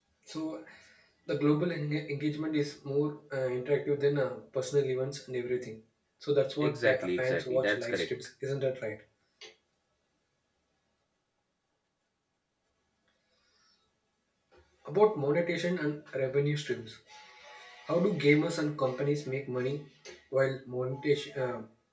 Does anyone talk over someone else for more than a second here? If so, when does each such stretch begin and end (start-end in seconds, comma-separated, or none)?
6.6-8.1